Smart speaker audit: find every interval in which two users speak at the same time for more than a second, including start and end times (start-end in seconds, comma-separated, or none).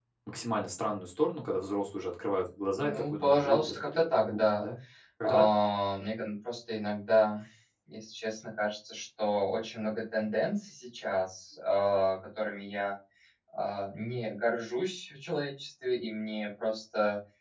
2.8-4.6